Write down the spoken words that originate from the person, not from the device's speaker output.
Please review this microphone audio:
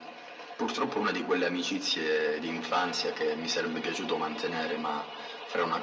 none

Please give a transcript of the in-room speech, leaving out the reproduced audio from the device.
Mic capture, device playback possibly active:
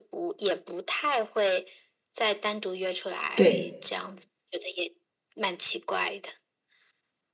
对。

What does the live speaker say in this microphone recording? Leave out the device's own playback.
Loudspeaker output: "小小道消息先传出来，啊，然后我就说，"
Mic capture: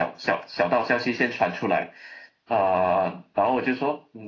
none

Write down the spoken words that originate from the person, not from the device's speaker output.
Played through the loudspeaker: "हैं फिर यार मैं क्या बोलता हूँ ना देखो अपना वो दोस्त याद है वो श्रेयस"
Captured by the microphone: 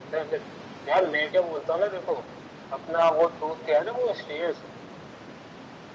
none

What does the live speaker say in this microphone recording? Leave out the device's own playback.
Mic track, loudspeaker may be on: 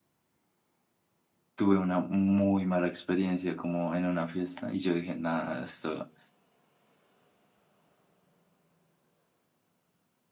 tuve una muy mala experiencia como en una fiesta y yo dije, nada, esto...

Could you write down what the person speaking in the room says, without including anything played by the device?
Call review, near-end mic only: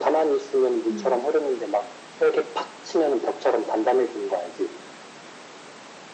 음.

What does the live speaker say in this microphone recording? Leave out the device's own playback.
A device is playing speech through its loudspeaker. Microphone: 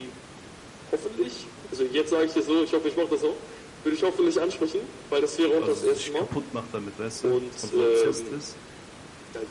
Also sich kaputt macht damit, weißt du? Dass man so obsessed ist

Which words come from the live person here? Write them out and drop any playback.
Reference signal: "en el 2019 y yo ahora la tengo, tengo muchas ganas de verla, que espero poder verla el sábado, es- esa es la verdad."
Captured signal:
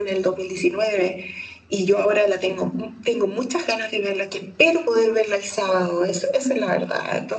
none

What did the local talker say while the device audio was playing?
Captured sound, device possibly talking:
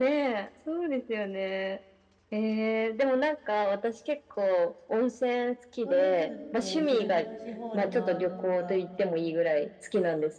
ゴルフって18ホール回るのが、

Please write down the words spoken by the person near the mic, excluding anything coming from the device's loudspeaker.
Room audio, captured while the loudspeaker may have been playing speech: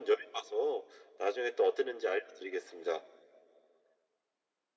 none

